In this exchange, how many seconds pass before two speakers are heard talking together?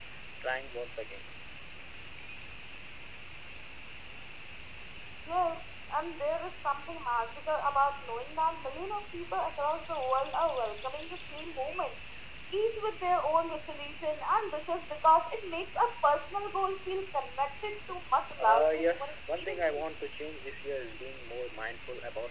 18 s

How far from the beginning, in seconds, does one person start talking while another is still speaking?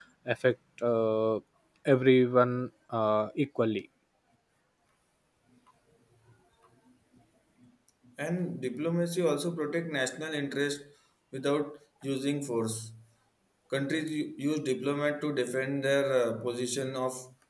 none

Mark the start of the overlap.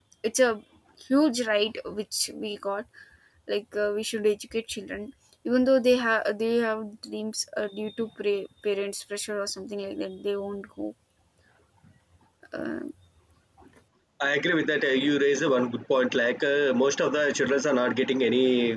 none

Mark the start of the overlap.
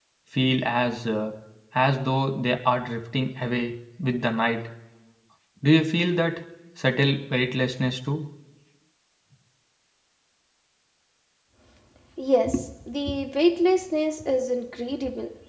none

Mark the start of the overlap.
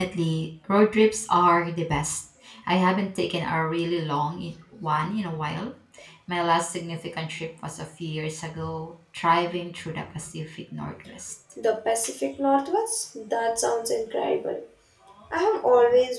none

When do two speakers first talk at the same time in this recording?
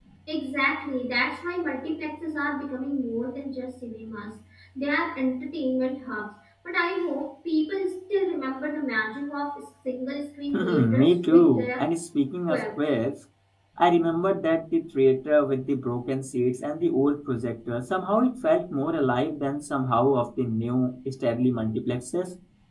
11 s

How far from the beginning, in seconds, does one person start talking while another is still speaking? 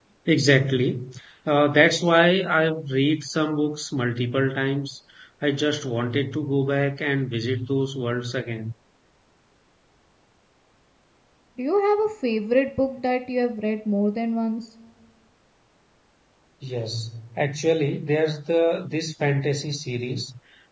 none

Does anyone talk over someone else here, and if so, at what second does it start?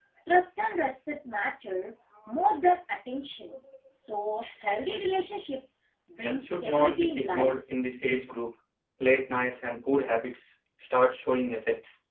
6 s

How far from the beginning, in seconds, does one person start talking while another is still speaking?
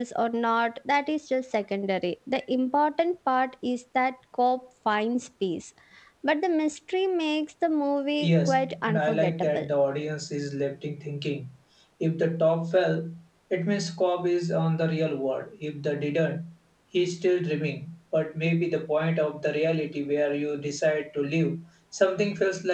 8 s

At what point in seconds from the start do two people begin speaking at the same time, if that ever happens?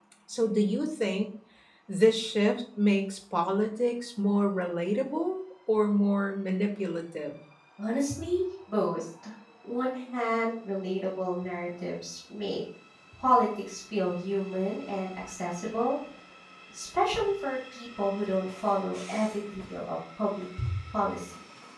none

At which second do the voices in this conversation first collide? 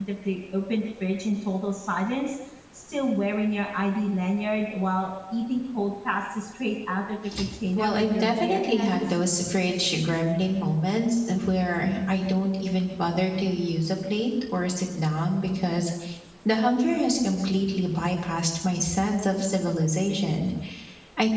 8 s

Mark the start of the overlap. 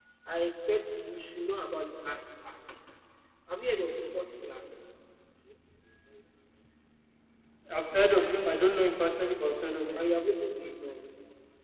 none

